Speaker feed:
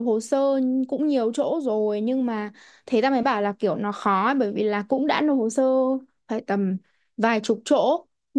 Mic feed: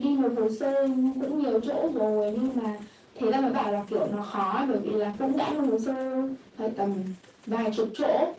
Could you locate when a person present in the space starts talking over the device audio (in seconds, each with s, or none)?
none